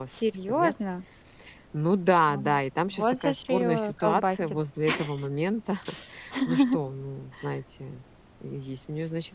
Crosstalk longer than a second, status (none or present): present